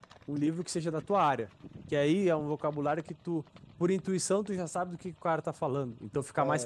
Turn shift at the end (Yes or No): No